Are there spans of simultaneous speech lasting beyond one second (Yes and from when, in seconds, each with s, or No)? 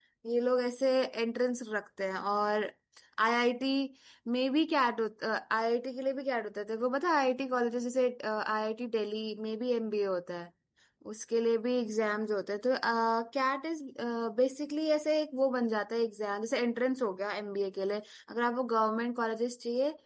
No